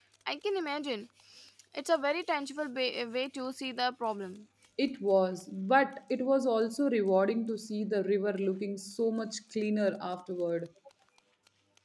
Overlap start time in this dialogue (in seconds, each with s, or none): none